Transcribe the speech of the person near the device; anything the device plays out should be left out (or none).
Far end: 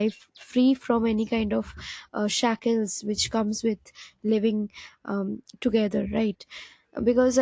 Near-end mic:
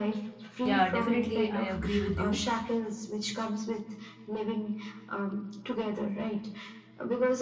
Yeah, definitely. I agree with you.